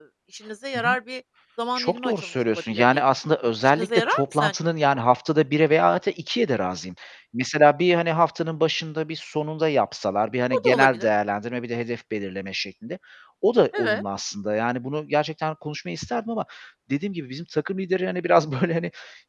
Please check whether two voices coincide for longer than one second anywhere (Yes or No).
Yes